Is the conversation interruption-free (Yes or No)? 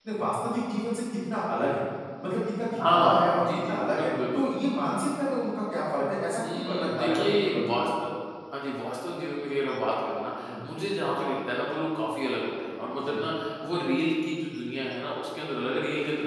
No